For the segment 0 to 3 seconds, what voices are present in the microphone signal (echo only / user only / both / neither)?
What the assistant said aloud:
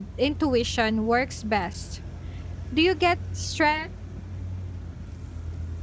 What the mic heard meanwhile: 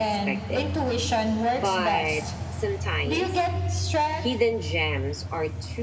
both